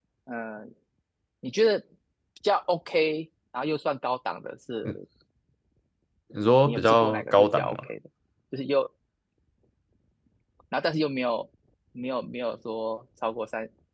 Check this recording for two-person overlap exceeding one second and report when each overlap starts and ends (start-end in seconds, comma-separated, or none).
6.6-7.8